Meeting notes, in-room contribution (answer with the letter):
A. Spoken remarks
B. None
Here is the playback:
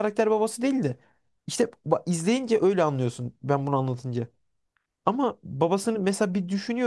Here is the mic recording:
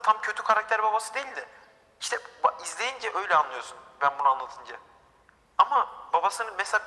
B